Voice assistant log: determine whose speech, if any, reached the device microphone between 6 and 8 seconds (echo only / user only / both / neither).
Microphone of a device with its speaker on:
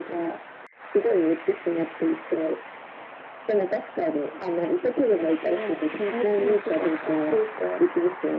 echo only